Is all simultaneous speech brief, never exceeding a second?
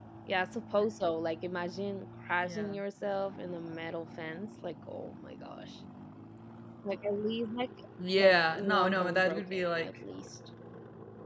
No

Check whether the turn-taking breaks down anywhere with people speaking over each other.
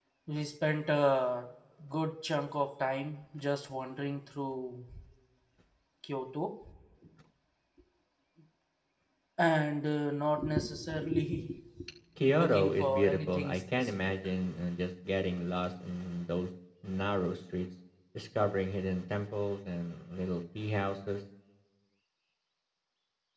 Yes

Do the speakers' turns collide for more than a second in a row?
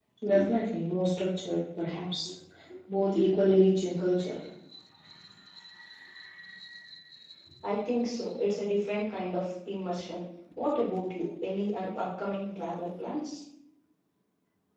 No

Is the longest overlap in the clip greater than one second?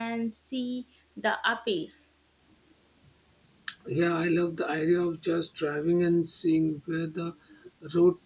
No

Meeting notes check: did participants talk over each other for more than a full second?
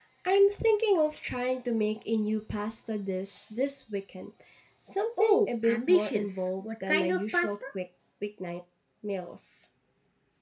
Yes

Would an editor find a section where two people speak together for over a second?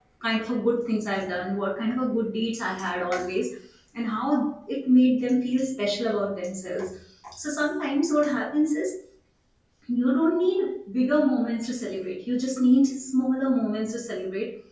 No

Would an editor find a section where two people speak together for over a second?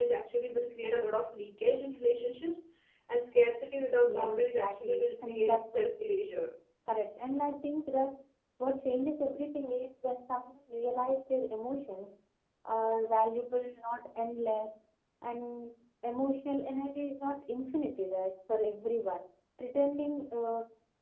Yes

